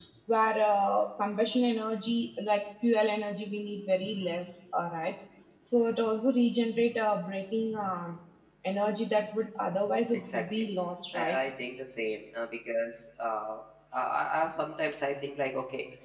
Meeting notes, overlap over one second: none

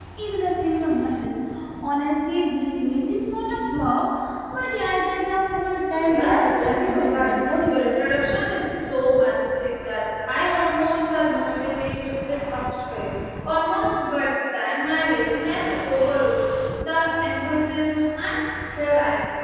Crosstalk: present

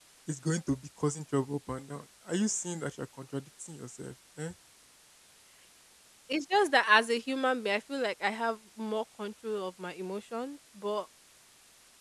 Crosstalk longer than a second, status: none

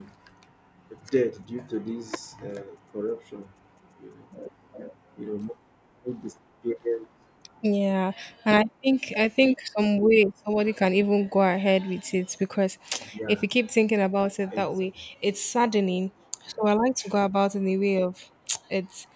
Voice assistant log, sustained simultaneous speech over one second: none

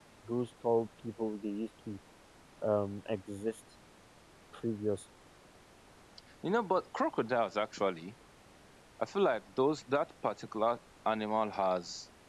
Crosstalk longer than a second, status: none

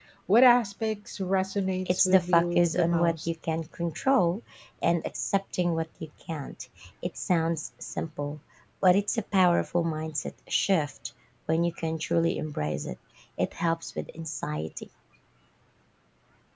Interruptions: present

